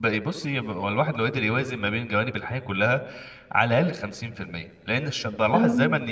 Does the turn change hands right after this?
No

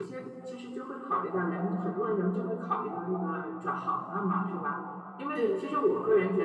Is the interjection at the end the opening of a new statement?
No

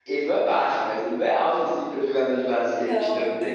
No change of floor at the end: No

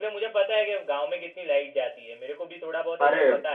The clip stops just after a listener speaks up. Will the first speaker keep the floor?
No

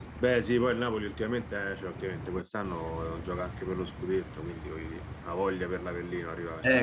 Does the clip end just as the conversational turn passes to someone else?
Yes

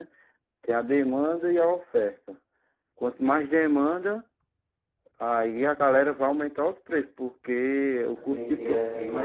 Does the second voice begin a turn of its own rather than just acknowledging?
Yes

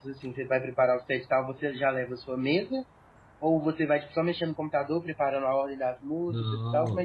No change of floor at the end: No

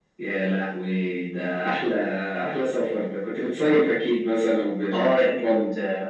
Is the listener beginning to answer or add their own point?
Yes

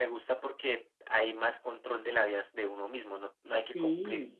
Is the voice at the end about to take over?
No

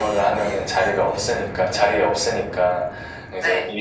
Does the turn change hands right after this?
No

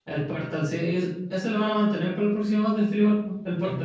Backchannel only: No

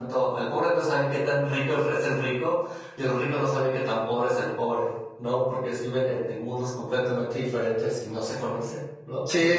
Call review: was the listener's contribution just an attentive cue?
No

